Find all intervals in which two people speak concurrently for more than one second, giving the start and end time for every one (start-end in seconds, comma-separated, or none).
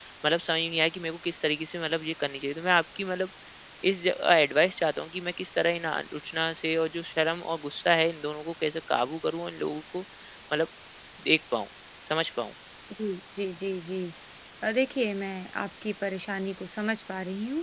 none